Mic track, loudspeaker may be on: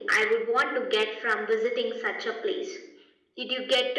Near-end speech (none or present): none